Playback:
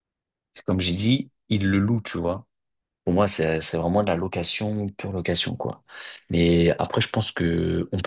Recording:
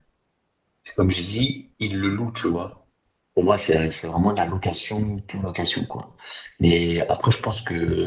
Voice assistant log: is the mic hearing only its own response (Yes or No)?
Yes